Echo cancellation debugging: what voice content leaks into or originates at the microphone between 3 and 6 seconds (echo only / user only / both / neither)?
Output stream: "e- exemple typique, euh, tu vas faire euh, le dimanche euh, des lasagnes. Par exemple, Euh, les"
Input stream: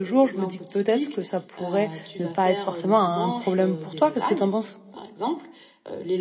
both